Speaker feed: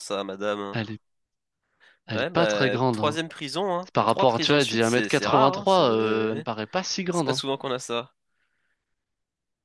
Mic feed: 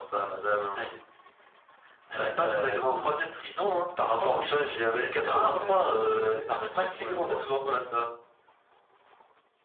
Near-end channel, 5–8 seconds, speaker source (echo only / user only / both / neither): both